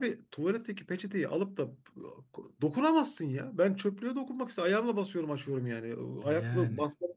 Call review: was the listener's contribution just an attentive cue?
Yes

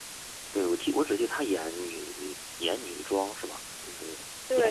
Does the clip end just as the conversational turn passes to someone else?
Yes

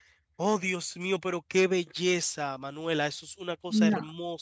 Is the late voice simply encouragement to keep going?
Yes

